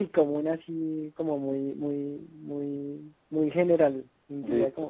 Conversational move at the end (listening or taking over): taking over